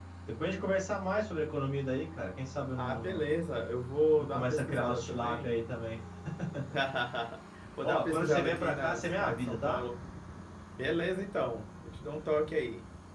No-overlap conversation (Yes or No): No